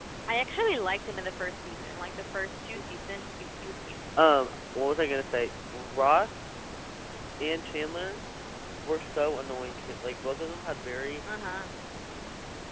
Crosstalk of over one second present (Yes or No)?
No